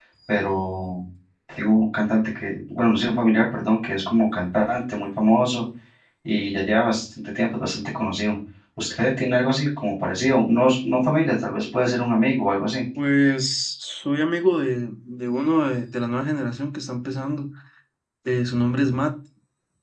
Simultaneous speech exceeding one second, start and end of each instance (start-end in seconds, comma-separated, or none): none